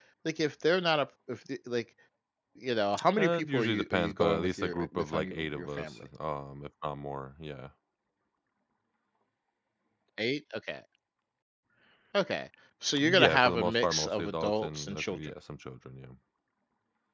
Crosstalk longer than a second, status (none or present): present